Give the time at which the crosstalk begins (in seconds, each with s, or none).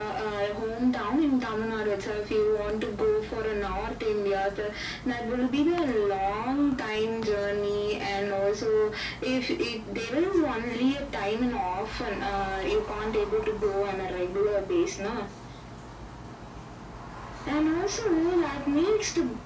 none